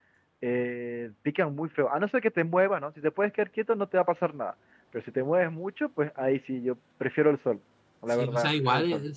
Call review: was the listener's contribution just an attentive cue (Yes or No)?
No